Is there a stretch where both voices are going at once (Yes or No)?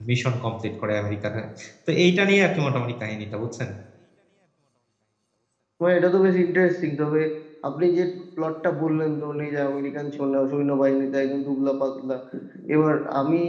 No